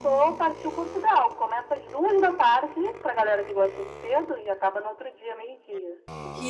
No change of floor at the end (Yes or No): No